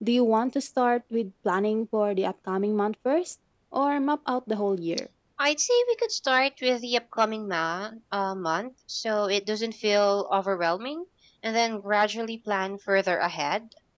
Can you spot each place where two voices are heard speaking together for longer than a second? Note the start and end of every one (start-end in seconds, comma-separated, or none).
none